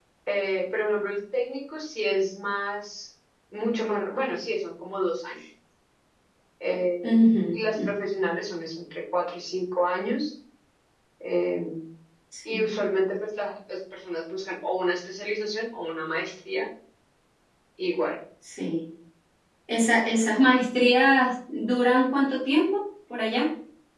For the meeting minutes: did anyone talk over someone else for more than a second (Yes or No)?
No